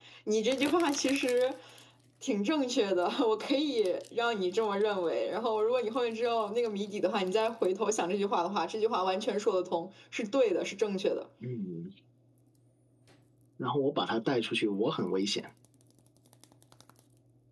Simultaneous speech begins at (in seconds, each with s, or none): none